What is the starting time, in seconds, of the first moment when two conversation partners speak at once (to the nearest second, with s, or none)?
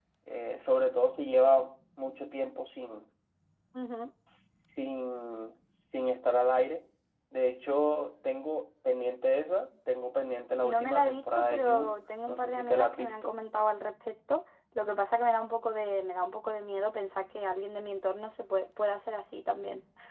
11 s